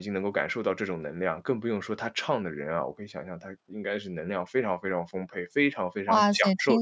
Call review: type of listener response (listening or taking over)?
taking over